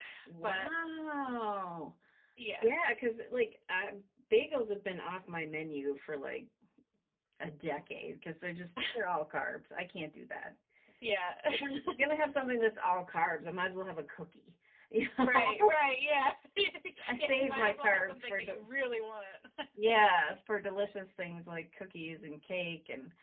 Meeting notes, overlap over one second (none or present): present